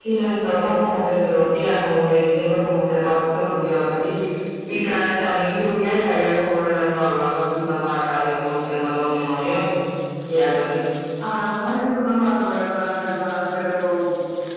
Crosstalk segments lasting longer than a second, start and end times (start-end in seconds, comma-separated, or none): none